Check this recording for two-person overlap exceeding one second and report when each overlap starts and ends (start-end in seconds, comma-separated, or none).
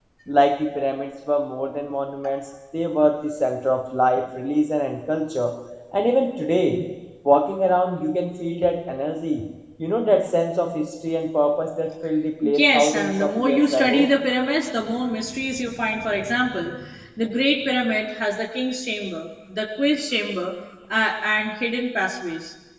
12.5-14.1